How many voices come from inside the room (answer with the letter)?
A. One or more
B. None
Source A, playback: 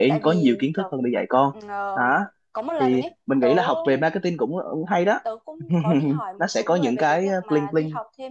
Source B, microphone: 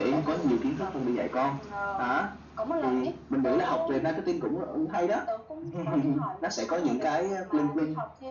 B